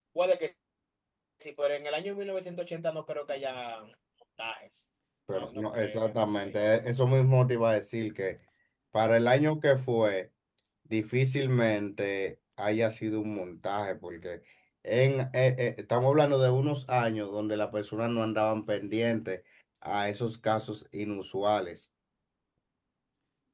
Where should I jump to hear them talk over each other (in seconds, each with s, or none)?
5.3 s